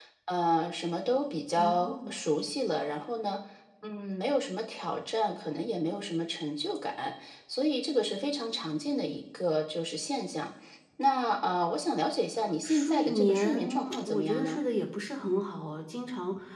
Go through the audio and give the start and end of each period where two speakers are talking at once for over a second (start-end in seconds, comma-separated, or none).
12.6-14.6